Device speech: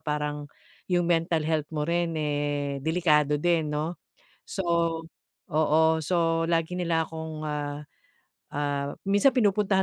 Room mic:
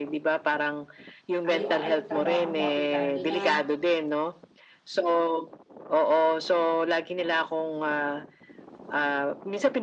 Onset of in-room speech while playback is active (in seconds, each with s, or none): 1.4 s